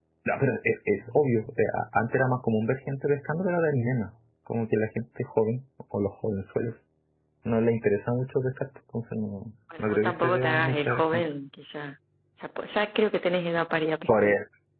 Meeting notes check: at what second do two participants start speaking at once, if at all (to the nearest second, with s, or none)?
10 s